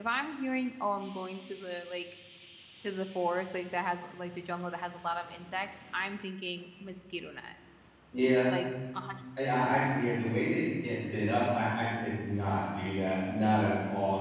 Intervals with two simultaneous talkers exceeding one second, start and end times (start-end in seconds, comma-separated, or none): none